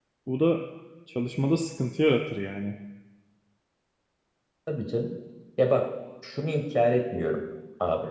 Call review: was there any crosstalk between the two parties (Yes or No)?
No